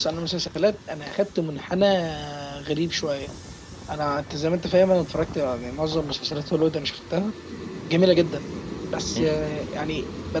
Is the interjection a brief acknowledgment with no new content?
Yes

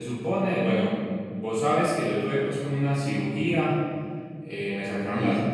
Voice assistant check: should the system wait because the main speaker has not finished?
Yes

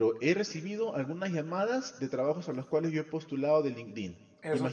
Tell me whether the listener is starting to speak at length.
Yes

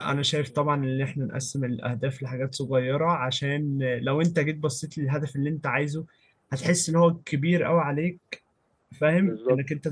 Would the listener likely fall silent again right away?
Yes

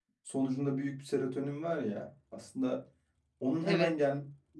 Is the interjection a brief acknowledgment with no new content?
Yes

